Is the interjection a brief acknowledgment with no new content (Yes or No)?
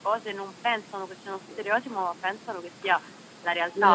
Yes